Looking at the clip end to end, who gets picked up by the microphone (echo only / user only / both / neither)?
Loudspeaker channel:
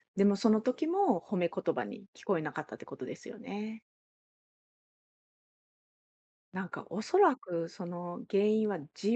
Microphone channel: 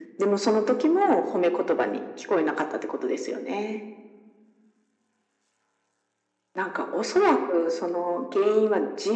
echo only